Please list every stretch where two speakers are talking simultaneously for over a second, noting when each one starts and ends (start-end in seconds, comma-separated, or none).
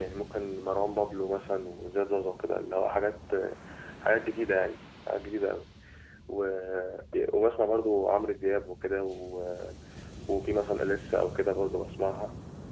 none